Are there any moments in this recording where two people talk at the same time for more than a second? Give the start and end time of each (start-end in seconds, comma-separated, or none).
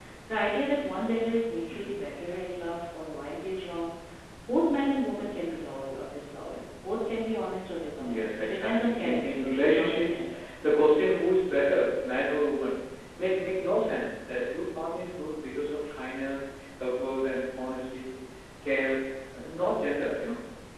8.0-10.2